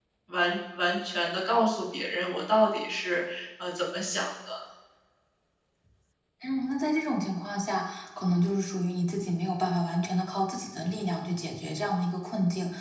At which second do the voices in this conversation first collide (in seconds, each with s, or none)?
none